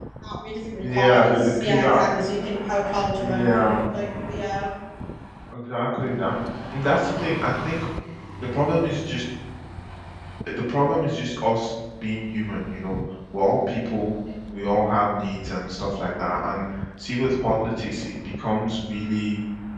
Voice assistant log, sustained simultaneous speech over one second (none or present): present